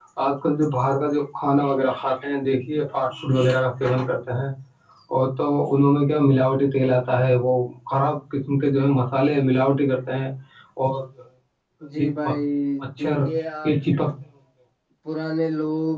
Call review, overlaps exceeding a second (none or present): none